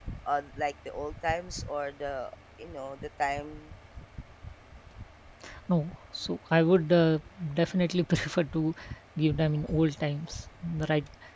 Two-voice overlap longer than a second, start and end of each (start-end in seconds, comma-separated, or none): none